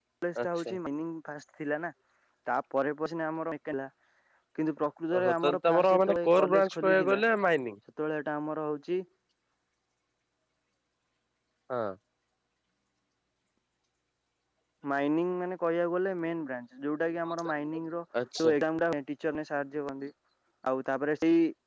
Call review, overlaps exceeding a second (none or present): present